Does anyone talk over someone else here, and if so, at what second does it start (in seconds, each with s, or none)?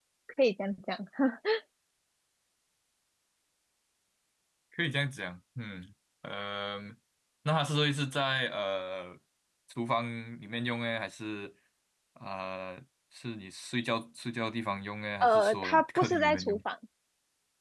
15.2 s